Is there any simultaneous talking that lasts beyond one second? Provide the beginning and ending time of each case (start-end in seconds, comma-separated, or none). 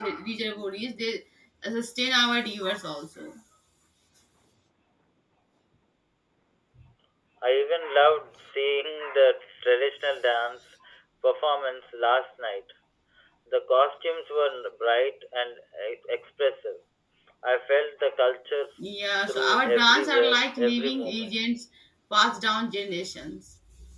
19.3-21.4